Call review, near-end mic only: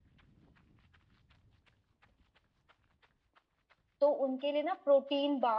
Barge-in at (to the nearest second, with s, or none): 4 s